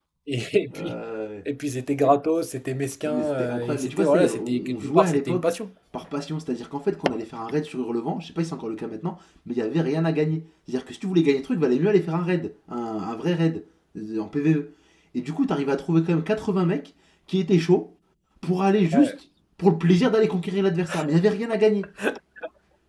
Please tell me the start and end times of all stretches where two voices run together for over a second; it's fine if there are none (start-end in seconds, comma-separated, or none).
3.0-5.5